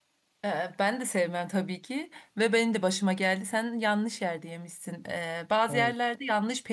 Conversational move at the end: listening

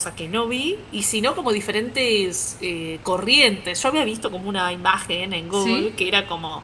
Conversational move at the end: listening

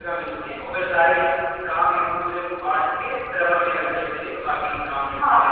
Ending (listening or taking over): taking over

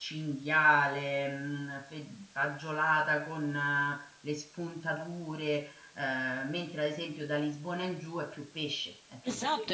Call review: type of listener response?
taking over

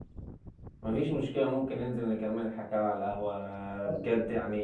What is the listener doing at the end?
listening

